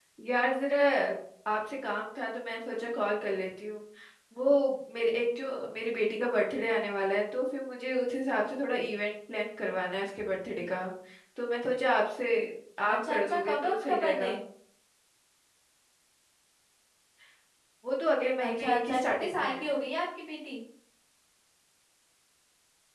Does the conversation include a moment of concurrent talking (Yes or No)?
Yes